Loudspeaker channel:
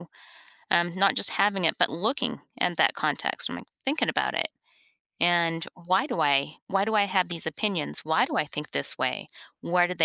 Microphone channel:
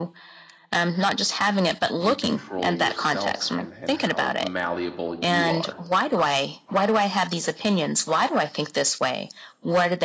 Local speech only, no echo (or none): you control yourself and and how malleable you are